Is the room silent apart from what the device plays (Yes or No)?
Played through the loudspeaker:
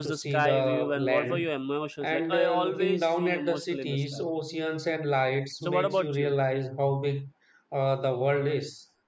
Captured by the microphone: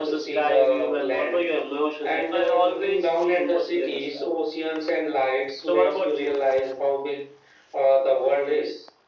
Yes